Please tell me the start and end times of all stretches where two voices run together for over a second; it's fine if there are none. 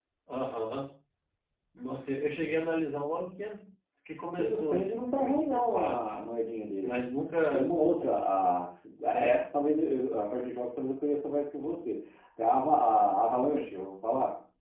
4.4-6.1

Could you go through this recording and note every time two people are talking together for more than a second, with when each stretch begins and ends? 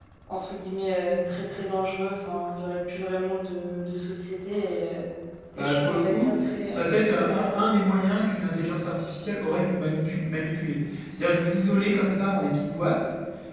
5.6-7.7

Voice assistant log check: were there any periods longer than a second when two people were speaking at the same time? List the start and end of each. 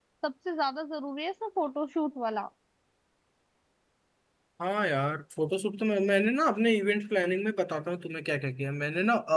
none

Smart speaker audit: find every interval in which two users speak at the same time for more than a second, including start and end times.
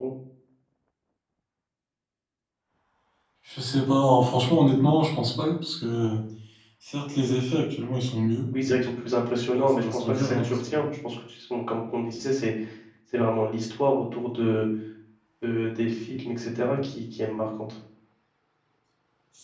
9.5-10.8

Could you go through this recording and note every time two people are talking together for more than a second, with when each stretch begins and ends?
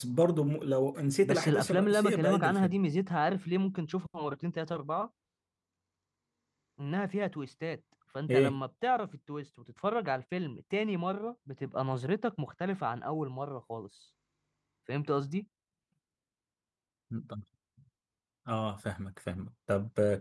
1.2-2.8

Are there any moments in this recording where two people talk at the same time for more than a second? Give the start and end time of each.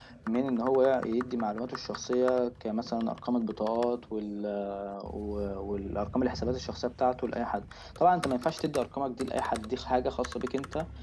none

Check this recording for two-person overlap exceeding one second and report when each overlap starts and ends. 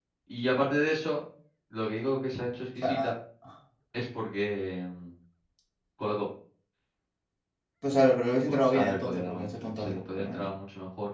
8.5-10.5

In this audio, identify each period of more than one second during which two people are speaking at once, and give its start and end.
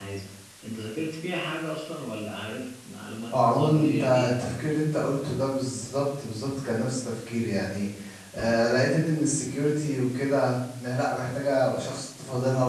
3.3-4.5

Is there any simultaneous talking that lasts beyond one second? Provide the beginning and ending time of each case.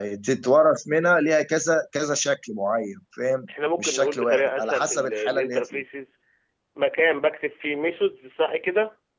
3.8-5.8

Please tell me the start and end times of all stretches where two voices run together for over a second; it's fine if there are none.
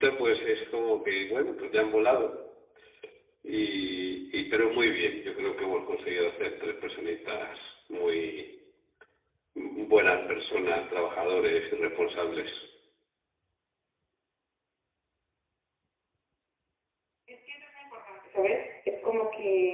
none

